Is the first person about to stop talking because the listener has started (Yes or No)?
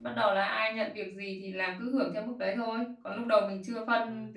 No